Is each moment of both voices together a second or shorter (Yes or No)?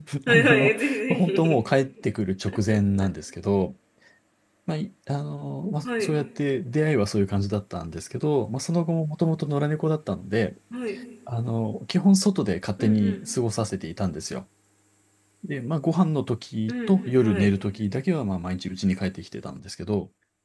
No